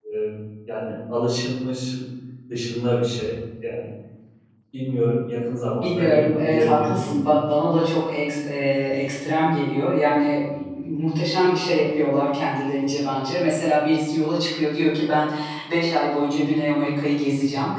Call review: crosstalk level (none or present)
present